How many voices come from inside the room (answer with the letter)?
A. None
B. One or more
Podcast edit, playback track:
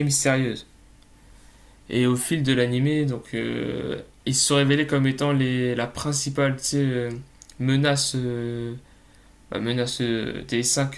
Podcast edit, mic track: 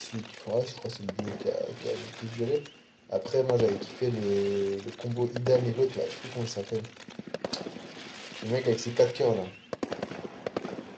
B